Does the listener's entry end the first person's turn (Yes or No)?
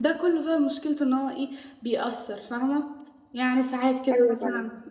No